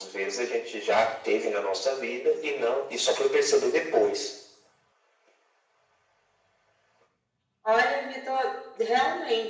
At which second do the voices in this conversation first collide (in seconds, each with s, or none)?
none